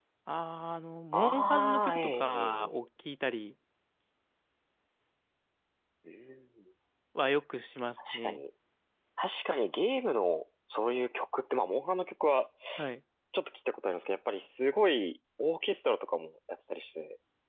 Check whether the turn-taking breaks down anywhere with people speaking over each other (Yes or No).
Yes